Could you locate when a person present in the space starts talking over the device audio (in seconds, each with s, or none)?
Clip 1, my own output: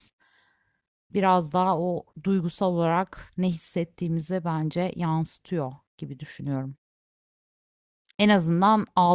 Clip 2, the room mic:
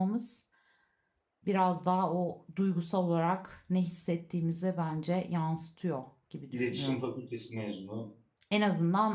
6.5 s